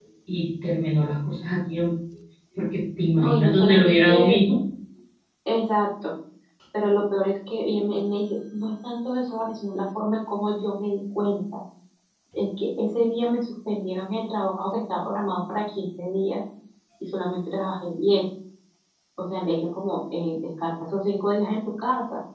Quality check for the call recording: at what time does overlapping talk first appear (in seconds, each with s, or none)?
3.1 s